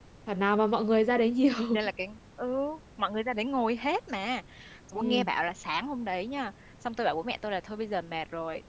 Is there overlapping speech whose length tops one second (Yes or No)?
No